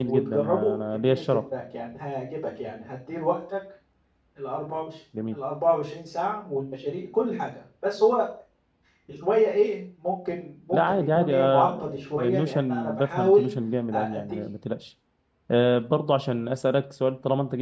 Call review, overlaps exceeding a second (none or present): present